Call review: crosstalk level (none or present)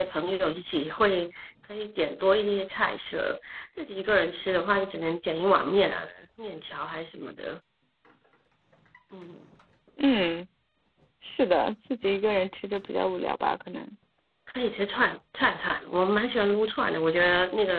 none